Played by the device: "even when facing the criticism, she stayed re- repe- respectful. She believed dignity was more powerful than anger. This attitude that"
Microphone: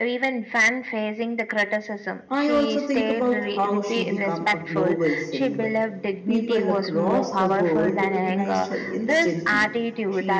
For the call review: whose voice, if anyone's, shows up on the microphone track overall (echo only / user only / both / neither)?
both